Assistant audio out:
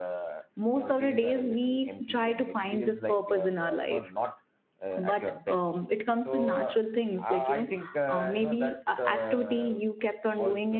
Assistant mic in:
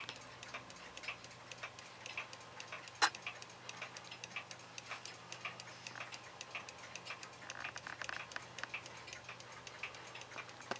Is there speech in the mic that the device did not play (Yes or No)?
No